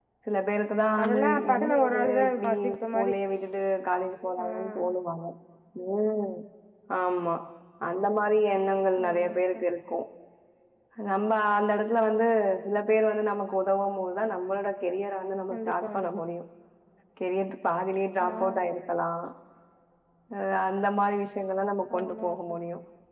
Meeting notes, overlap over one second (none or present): present